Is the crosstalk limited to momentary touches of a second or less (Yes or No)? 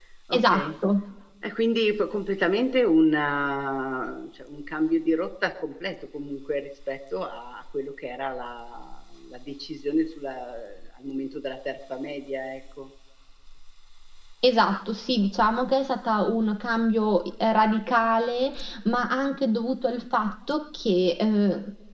Yes